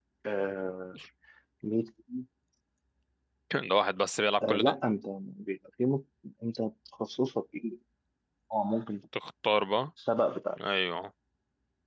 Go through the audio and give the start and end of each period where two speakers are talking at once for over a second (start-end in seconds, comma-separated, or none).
none